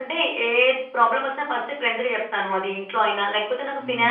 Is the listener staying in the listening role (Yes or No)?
Yes